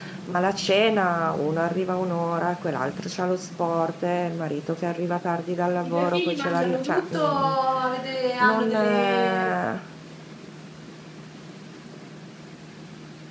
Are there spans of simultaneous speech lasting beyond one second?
Yes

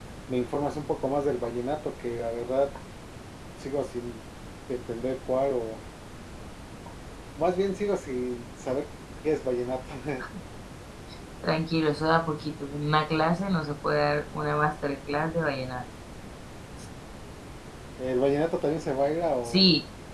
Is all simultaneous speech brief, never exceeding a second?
Yes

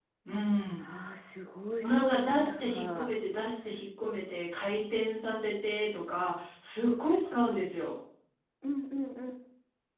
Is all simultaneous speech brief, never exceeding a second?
No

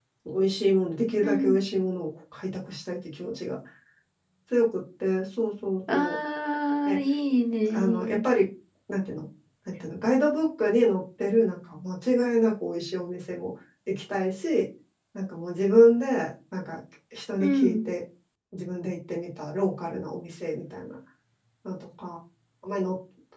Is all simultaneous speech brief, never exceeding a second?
Yes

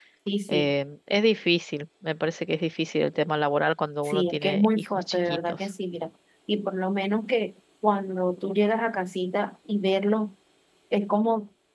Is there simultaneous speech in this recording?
Yes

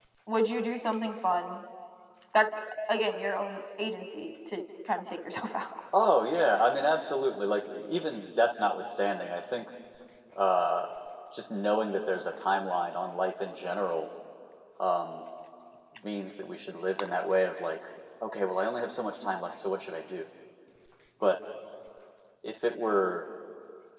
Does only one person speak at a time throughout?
Yes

